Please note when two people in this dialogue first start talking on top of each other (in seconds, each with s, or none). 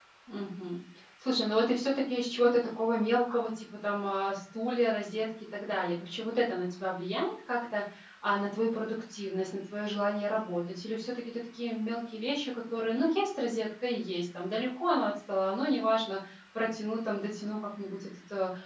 none